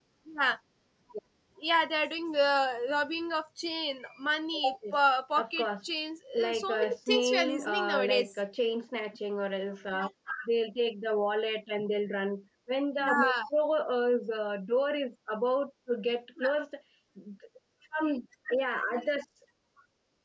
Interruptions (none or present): present